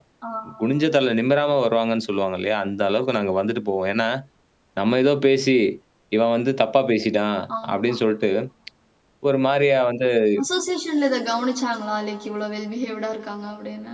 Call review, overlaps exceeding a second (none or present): none